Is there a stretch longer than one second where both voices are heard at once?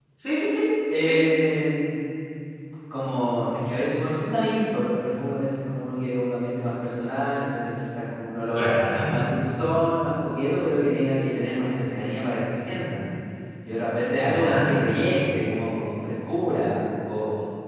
No

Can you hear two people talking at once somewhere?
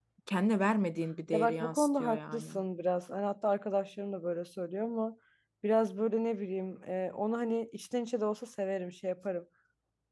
Yes, from 1.3 s

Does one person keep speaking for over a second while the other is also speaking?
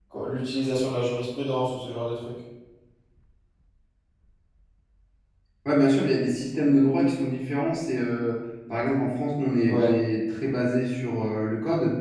No

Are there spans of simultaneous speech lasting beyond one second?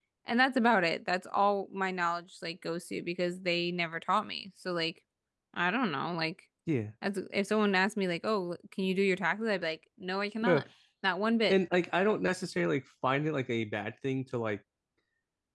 No

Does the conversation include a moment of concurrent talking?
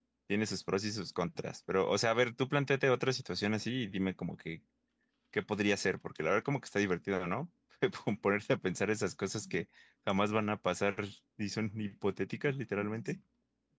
No

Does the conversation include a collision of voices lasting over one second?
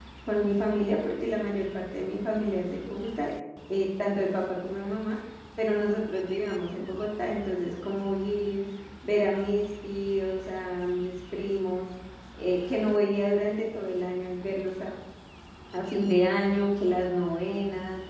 No

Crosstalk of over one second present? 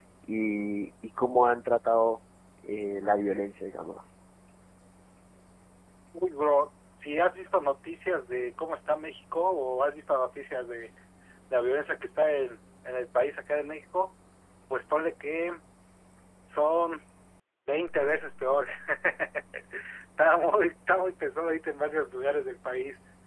No

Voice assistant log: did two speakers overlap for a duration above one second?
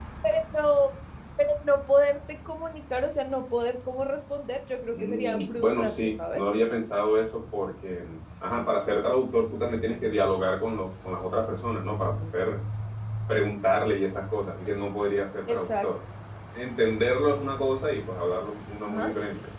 Yes, from 4.9 s

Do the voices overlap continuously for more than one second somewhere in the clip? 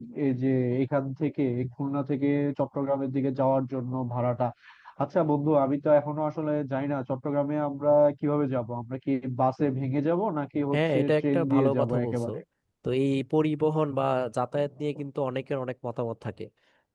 Yes, from 10.7 s

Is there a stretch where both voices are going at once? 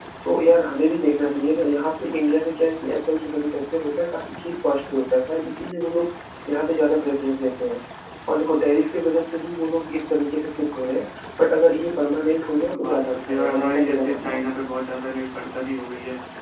Yes, from 12.7 s

